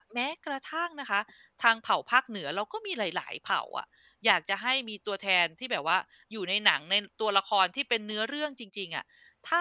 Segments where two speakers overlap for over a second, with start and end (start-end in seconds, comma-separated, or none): none